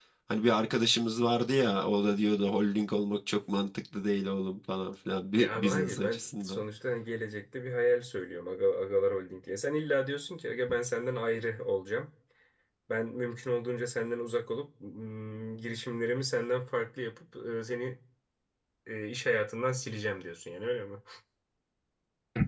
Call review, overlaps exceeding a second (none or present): present